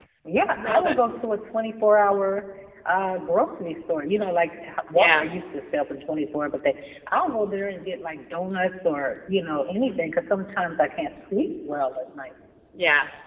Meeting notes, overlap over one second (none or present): none